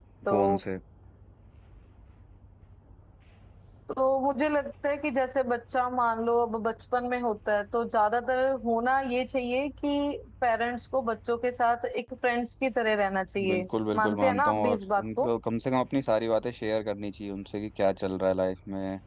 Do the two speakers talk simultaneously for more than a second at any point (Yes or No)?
Yes